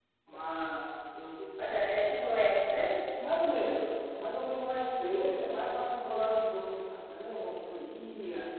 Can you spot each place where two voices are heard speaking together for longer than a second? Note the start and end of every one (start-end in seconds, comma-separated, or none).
none